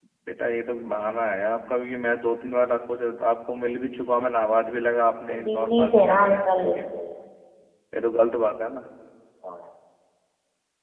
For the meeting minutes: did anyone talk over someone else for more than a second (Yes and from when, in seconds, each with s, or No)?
Yes, from 5.3 s